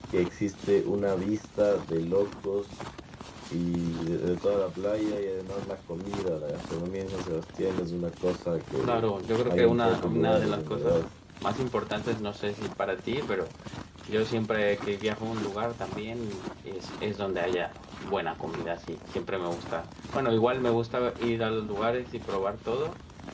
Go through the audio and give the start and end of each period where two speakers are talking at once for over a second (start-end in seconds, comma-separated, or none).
9.4-11.1